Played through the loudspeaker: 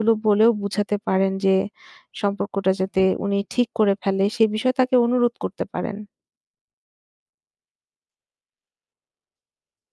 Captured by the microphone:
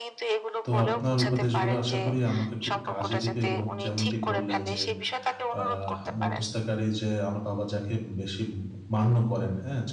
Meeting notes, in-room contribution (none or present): present